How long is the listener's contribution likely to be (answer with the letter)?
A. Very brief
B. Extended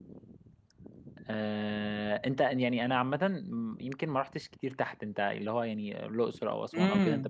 B